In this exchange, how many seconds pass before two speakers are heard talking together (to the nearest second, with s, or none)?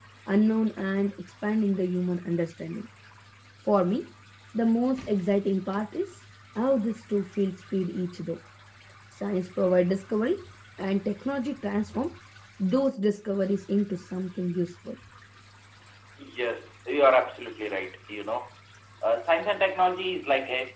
none